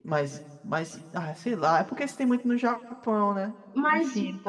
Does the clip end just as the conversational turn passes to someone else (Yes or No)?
Yes